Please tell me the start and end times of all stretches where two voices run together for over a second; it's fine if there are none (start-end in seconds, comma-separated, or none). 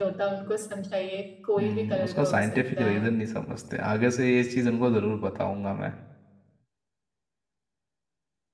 1.6-3.0